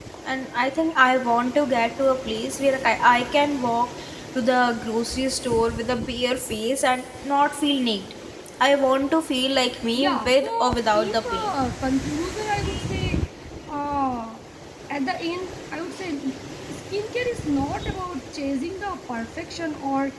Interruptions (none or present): present